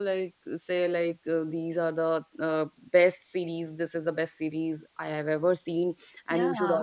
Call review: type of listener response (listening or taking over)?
listening